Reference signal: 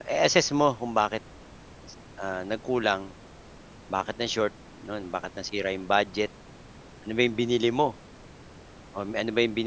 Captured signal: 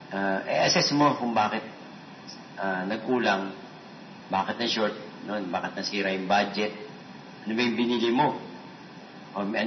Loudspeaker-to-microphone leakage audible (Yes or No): Yes